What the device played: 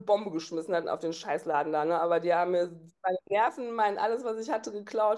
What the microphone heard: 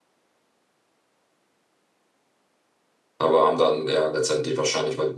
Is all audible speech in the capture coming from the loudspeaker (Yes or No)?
No